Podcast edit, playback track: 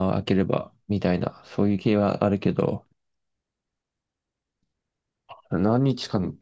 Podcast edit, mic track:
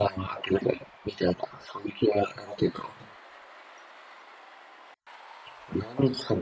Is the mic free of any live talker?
Yes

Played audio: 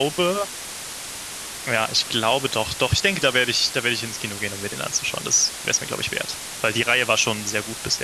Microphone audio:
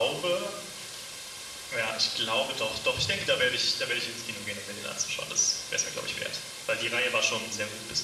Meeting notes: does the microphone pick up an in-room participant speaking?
No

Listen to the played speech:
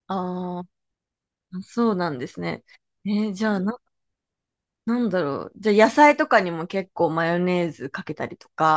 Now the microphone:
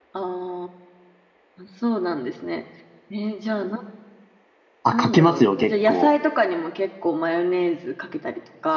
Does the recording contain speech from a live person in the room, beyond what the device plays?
Yes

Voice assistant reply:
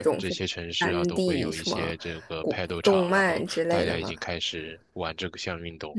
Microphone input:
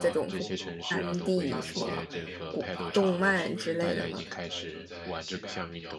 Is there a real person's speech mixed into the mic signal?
Yes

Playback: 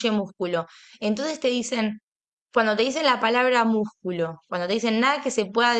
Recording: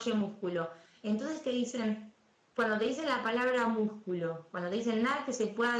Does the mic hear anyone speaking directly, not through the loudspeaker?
No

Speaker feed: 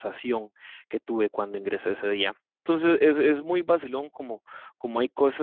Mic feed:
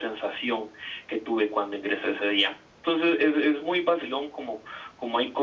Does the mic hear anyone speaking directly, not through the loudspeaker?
No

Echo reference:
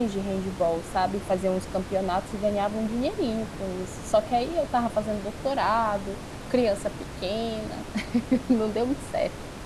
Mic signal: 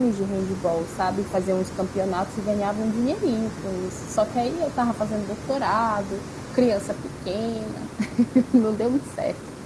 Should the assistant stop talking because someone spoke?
No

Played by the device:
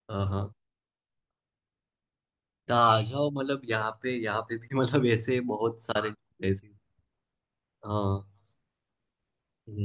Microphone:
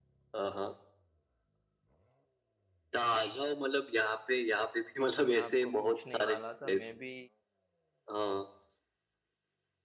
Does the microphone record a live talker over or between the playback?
Yes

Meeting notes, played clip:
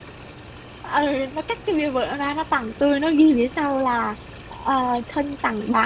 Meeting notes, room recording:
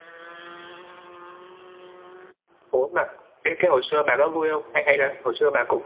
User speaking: Yes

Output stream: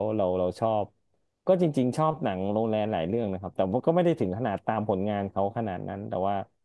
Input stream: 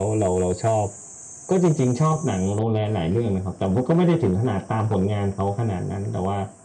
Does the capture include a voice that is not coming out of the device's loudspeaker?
No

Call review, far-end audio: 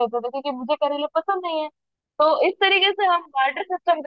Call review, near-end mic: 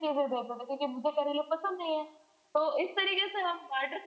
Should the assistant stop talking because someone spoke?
No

